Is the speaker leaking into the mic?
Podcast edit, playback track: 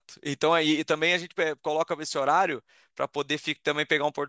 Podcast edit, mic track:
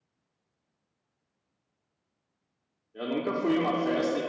No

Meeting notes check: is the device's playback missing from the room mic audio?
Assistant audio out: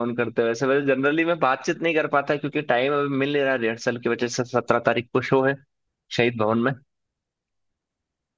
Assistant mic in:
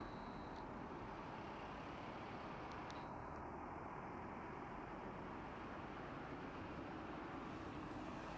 Yes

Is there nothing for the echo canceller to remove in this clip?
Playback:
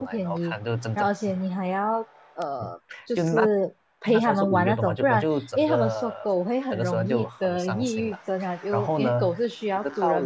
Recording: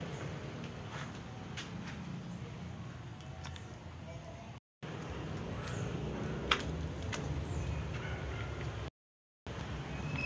Yes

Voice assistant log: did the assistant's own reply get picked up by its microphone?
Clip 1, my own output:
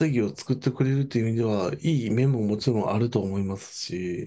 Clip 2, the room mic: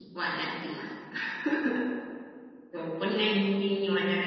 No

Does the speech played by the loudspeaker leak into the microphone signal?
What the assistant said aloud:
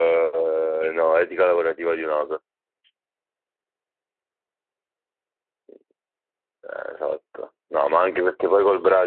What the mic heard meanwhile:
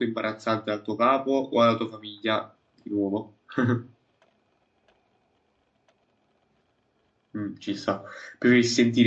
No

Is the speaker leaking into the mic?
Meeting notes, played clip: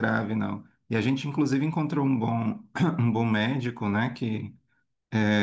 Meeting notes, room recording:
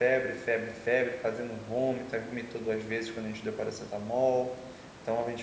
No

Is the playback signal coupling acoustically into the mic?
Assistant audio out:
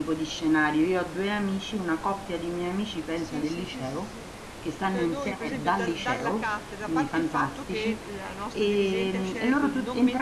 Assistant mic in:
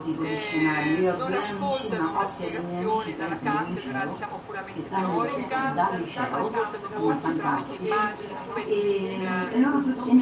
Yes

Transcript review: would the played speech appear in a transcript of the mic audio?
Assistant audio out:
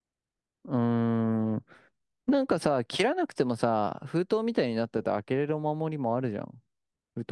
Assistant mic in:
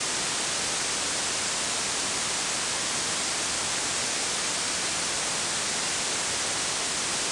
No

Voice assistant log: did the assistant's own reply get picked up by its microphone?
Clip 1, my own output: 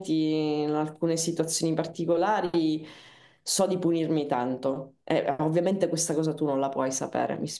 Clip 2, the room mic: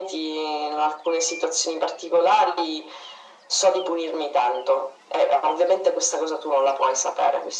Yes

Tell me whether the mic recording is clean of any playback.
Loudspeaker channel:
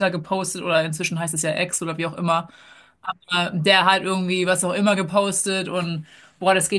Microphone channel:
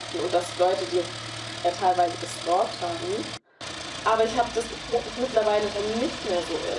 Yes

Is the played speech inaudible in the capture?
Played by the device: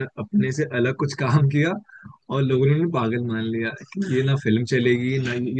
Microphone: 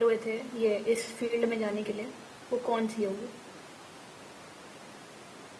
Yes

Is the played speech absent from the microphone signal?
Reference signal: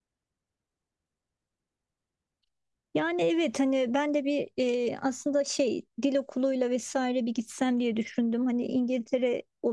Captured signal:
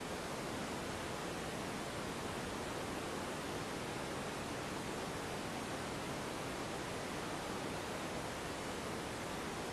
Yes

